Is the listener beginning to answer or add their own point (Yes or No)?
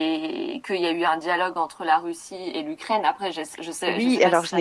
Yes